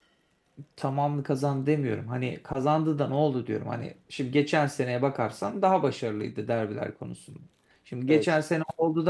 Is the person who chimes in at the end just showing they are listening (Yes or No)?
Yes